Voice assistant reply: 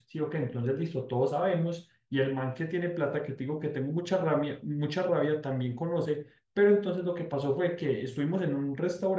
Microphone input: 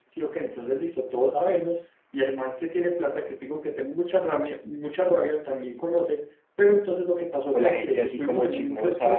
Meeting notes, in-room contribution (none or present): present